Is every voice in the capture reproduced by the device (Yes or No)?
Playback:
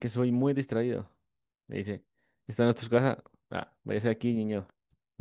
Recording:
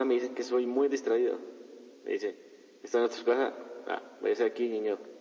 Yes